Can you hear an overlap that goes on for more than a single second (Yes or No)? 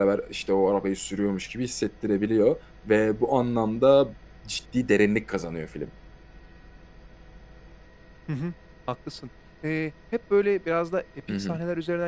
No